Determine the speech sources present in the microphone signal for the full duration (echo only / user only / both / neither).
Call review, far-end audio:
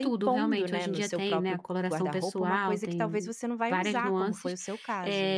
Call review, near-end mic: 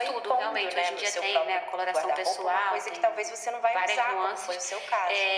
echo only